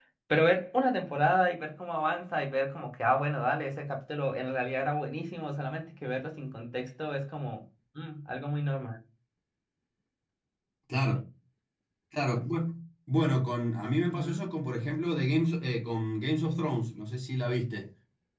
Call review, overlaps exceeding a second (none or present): none